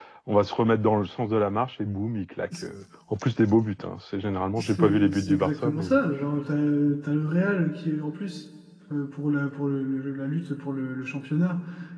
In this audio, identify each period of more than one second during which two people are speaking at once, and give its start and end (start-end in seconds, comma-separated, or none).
4.6-5.9